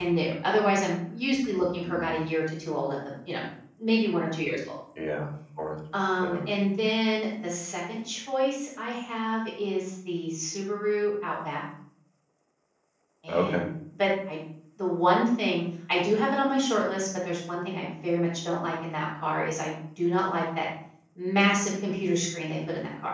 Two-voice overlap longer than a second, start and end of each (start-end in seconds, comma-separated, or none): none